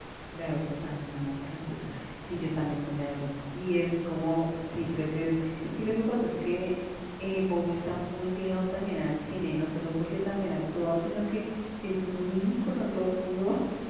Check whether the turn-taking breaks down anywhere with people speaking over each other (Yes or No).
No